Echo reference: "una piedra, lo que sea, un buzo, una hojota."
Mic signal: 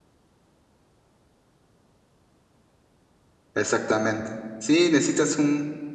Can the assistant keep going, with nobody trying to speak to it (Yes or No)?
No